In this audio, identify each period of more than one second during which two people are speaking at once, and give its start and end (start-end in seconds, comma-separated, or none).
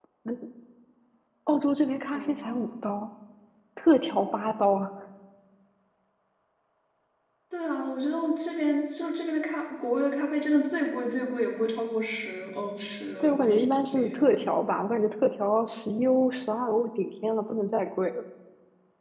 13.2-14.5